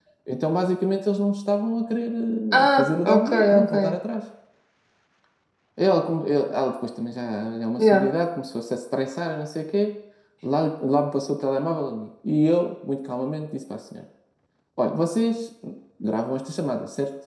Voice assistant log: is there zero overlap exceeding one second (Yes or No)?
No